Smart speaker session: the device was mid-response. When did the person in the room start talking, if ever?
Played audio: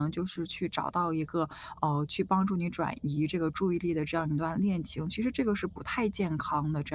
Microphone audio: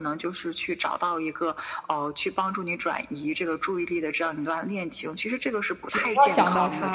5.8 s

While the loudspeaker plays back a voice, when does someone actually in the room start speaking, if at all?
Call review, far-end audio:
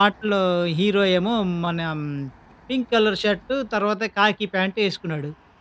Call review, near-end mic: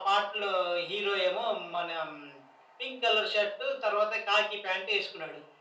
none

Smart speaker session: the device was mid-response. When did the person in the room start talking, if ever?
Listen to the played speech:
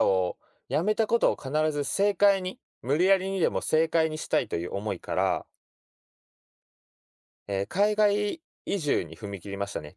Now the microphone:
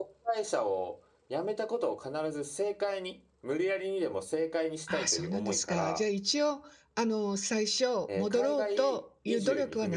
4.8 s

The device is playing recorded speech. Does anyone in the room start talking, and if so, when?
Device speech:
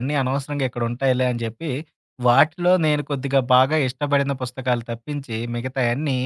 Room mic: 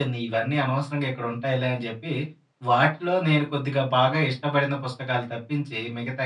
none

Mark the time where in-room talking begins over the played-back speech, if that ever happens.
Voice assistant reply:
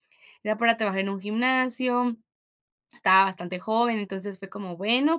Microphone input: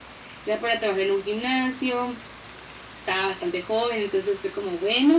none

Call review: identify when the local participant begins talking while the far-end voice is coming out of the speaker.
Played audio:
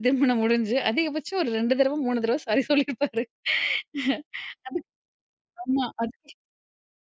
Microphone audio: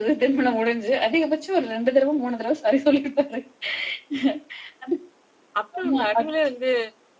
5.6 s

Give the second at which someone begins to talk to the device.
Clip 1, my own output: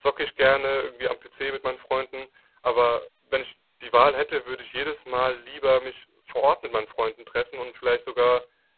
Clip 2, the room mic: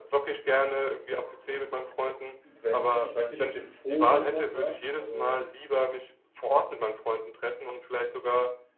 2.5 s

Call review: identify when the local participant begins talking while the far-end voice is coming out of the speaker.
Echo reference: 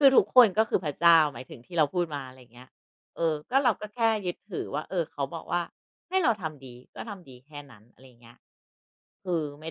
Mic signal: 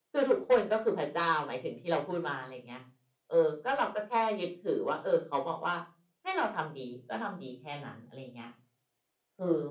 none

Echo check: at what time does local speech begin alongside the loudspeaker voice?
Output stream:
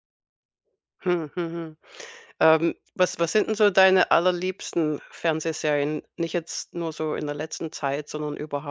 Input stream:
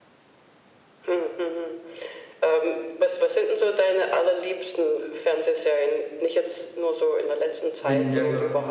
7.8 s

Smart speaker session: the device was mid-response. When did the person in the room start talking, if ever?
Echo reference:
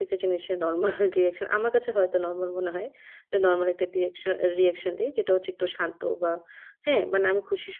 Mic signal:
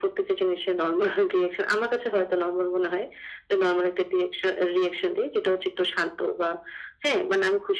none

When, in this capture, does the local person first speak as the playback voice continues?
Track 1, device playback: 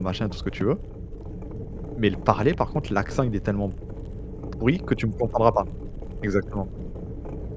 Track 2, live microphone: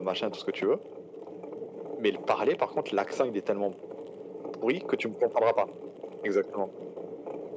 none

